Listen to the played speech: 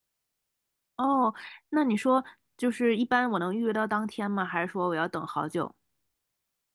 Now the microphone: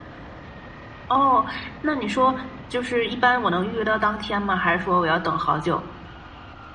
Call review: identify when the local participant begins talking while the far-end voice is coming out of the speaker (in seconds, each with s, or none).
none